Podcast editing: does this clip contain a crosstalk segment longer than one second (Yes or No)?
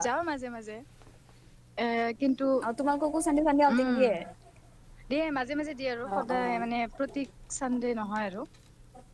No